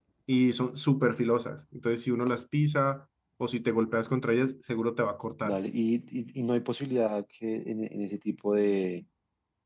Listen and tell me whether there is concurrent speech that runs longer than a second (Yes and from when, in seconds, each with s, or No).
No